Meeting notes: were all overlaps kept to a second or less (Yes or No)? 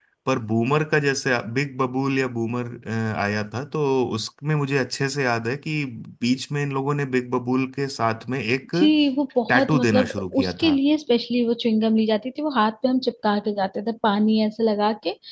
No